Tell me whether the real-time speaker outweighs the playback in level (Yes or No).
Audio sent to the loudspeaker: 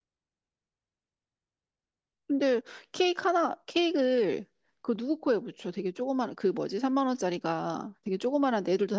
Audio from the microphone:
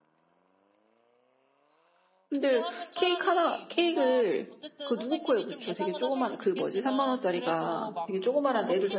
No